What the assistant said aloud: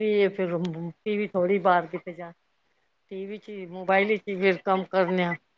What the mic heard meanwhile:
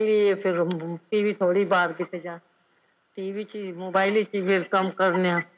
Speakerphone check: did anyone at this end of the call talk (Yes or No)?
No